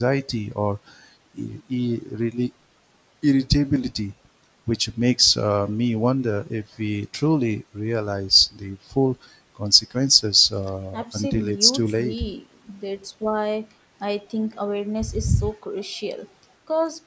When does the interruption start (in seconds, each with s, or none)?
10.9 s